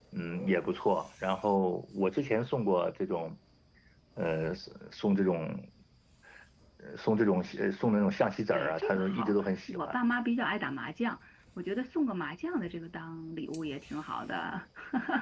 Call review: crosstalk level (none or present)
present